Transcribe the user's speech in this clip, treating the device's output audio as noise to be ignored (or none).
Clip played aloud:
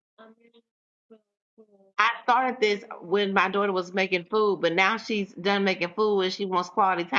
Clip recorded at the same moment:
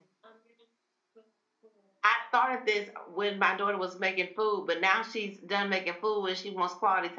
none